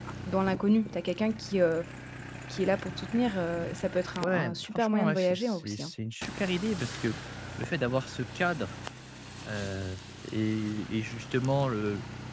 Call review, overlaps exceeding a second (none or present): present